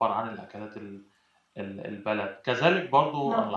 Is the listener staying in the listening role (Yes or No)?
Yes